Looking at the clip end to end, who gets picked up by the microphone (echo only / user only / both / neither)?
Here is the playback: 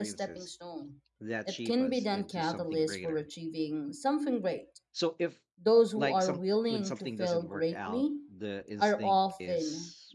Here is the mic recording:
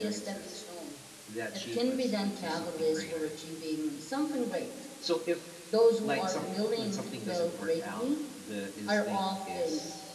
echo only